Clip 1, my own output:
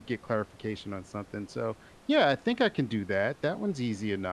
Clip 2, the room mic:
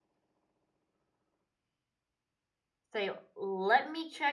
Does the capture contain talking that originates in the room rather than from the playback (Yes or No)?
Yes